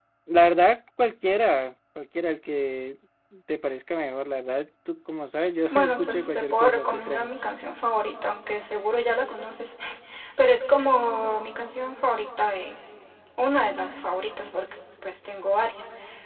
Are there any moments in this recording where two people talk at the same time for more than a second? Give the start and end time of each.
5.7-7.3

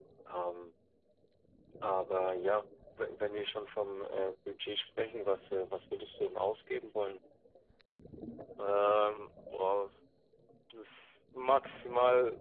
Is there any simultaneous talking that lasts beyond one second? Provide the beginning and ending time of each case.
none

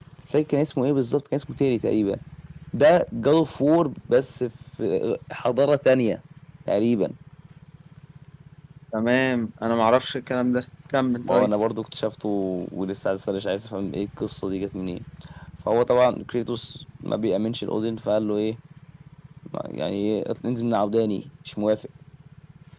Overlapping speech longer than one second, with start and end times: none

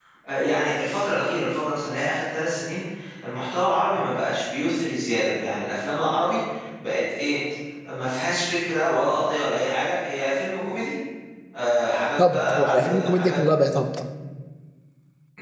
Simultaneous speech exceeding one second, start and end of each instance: 12.2-13.4

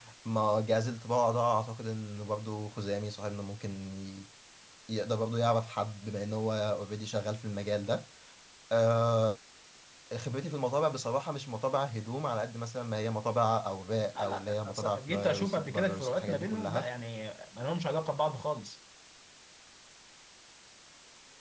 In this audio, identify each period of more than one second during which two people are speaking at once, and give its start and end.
14.2-16.9

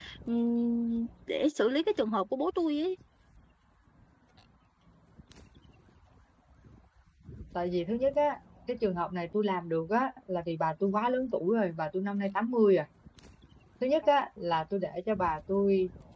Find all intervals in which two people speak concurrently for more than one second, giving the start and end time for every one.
none

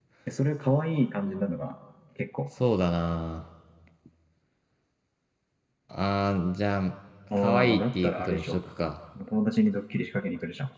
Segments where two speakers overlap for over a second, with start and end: 7.4-8.6

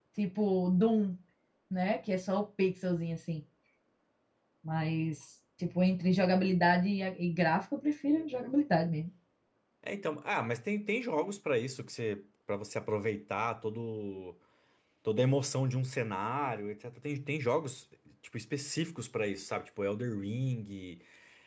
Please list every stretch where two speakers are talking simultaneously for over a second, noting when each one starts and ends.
none

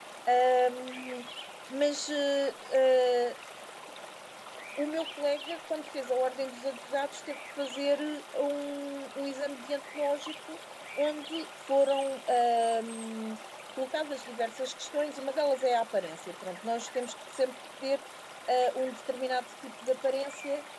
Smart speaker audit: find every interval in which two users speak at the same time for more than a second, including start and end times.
none

